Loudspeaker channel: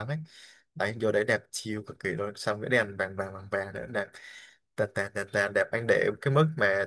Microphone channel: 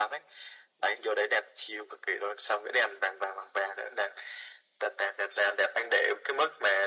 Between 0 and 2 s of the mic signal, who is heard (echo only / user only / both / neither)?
echo only